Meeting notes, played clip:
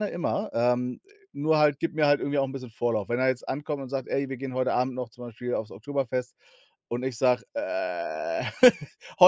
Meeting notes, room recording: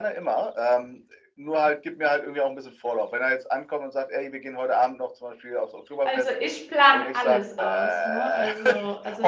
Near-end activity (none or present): present